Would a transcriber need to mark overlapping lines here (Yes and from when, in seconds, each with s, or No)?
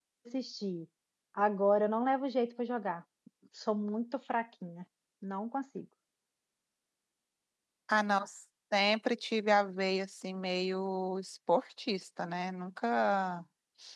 No